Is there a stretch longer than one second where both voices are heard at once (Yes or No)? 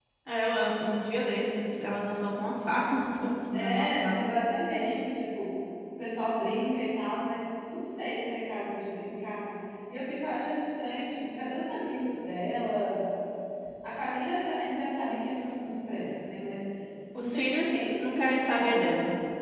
Yes